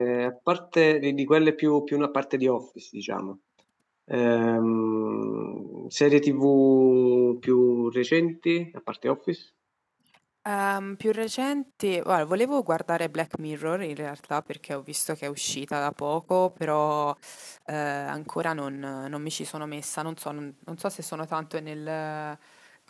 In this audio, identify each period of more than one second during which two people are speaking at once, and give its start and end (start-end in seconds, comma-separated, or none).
none